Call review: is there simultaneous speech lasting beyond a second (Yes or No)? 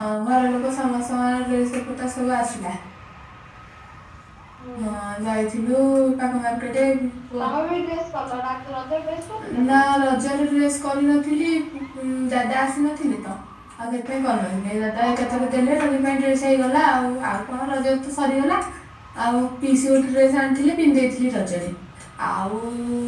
No